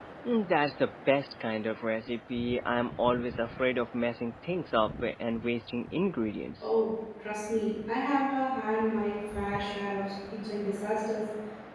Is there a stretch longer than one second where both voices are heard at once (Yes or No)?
No